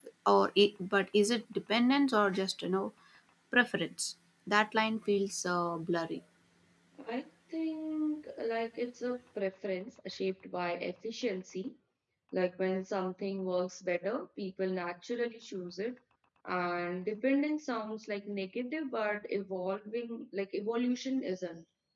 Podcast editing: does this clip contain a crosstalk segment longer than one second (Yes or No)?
No